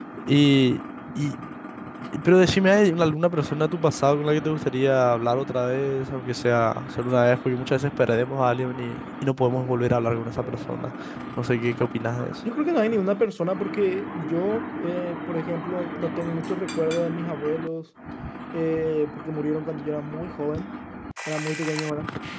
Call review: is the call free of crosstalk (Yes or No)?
Yes